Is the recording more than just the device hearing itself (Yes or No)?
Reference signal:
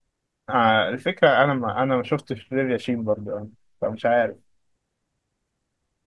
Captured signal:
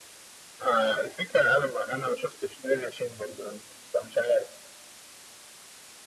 No